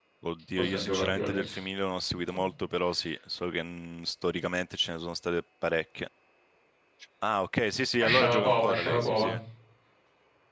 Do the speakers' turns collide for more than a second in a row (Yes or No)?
Yes